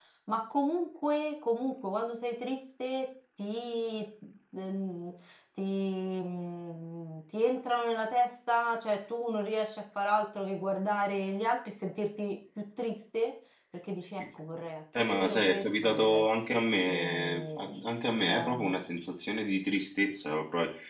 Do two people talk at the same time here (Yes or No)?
Yes